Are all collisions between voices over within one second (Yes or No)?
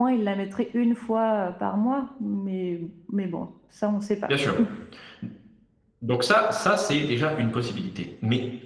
Yes